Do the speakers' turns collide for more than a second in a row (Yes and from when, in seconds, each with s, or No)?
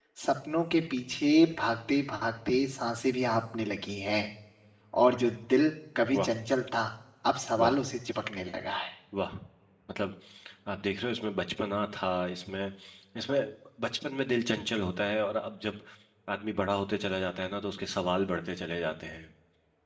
No